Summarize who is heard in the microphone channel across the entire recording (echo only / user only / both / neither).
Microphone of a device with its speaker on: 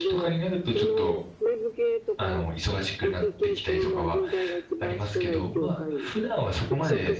both